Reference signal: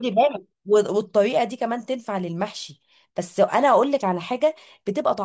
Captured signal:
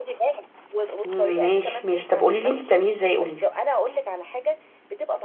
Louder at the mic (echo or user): user